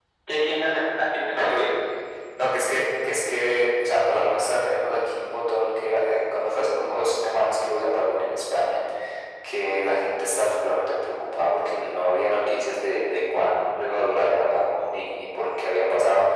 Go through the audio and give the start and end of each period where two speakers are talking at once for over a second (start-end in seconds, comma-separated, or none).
none